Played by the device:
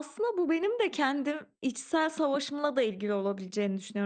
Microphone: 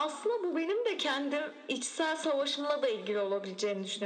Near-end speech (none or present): none